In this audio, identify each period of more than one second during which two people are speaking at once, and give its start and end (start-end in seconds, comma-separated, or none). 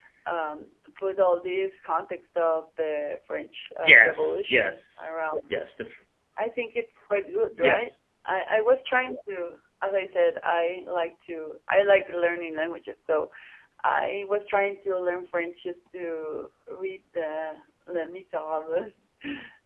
3.8-5.1